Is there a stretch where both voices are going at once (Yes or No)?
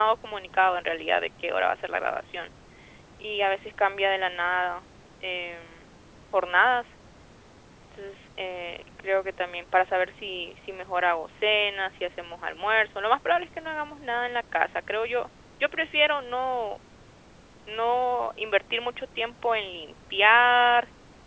No